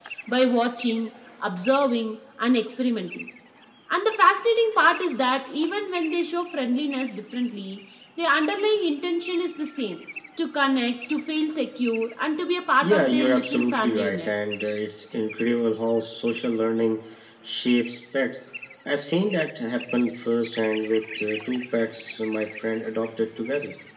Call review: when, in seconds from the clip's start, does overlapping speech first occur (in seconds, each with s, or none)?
12.8 s